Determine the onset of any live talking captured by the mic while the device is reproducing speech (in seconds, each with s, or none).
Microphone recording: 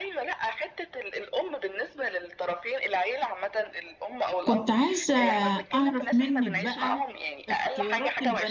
4.4 s